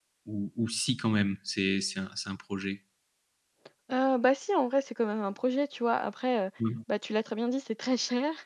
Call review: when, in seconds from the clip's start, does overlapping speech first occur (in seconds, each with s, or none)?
none